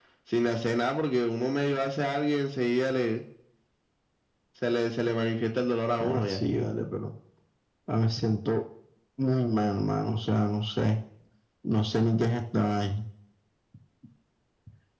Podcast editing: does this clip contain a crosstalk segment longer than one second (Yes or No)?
No